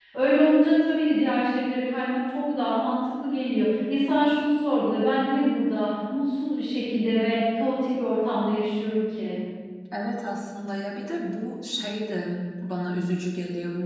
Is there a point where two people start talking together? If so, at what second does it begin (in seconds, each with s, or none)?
none